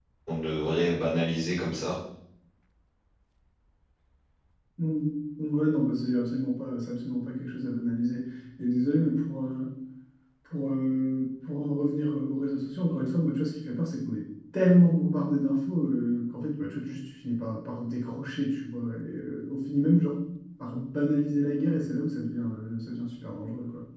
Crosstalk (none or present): none